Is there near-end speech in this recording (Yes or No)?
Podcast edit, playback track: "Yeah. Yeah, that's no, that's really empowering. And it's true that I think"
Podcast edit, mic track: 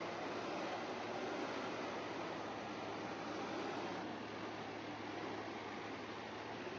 No